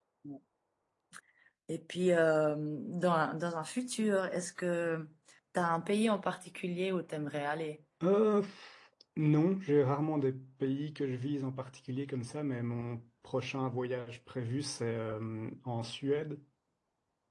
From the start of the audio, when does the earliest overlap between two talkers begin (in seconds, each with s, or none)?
none